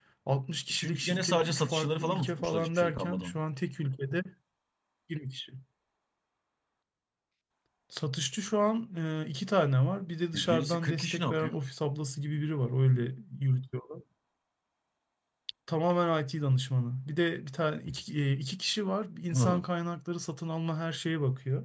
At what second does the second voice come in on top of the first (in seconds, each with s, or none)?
0.7 s